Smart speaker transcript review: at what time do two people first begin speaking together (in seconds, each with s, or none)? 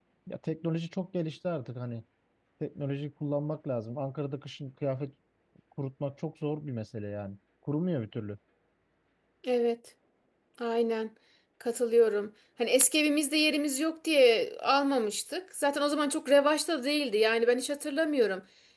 none